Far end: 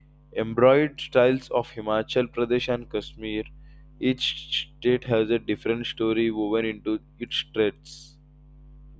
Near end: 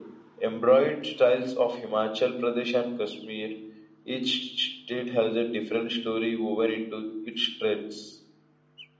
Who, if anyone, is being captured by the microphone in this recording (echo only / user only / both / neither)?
echo only